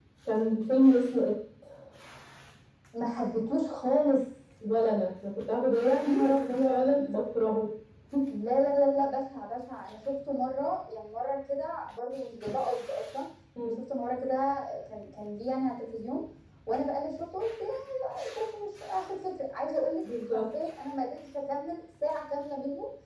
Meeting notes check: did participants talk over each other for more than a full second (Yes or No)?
Yes